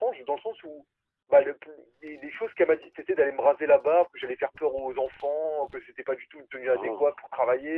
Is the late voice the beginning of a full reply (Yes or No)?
No